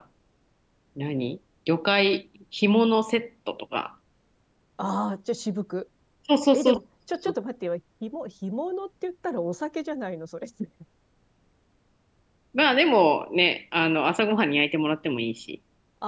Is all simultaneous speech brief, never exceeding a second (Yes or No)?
Yes